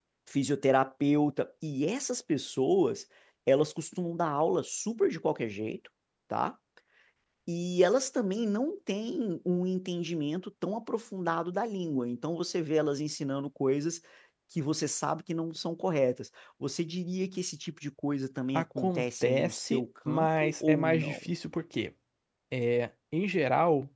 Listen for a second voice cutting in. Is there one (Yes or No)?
Yes